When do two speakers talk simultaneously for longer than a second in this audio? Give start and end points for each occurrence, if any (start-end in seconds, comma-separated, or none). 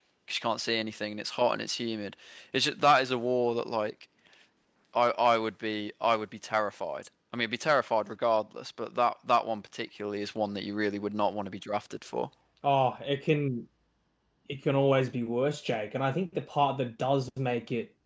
none